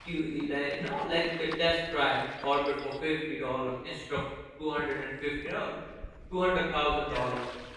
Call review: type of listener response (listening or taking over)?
listening